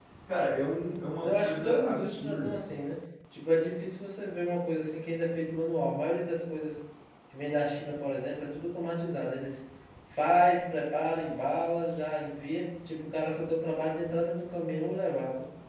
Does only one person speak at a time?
No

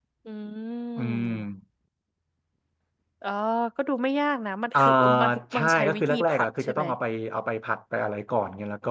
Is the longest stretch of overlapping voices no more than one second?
No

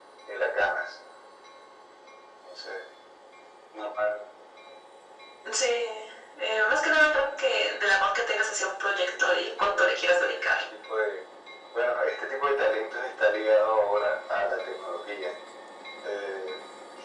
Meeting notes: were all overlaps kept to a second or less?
No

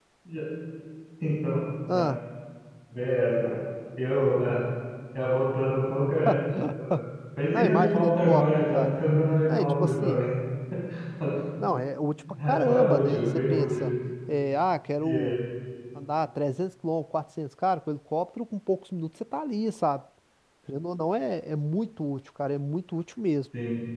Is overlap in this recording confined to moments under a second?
No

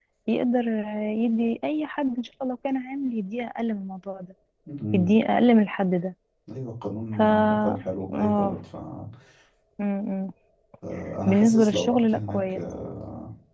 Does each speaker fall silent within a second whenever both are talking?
No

